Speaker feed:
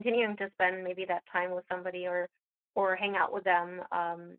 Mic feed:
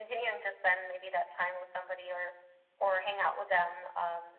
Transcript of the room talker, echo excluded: none

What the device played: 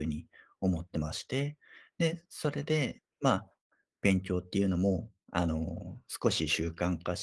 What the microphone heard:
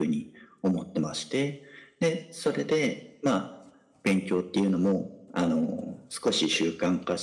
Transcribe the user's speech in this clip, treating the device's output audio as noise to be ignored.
none

